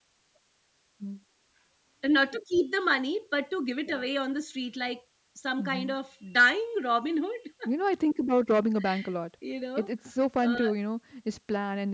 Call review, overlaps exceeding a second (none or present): none